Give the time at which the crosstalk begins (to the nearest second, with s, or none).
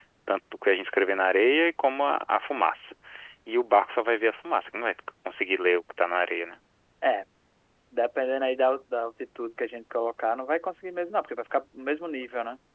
none